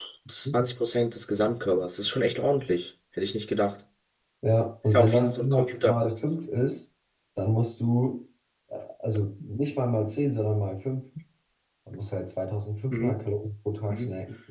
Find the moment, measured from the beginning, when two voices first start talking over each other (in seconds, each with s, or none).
4.9 s